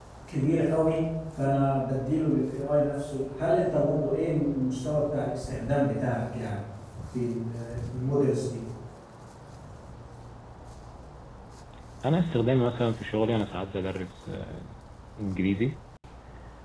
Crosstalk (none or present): none